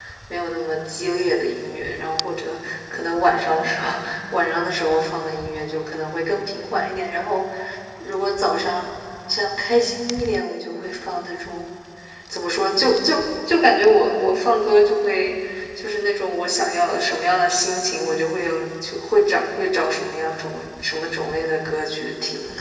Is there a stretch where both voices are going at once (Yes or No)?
No